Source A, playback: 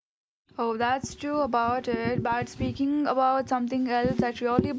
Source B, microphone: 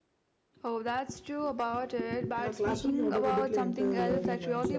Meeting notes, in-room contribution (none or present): present